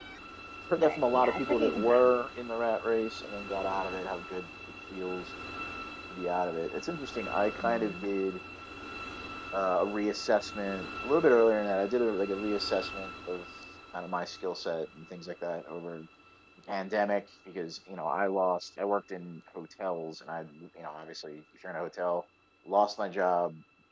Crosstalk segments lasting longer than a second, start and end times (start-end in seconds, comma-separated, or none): 0.8-2.1